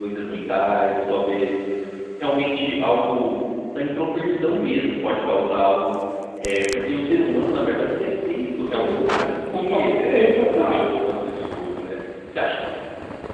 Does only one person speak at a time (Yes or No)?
No